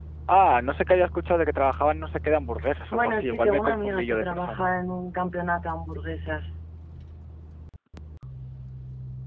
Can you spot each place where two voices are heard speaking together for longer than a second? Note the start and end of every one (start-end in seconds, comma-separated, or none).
2.9-4.7